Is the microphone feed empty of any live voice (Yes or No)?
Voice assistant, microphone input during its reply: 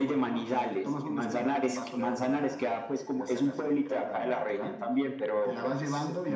Yes